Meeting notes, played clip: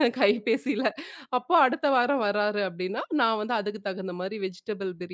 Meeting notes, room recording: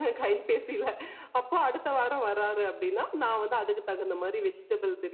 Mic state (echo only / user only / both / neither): echo only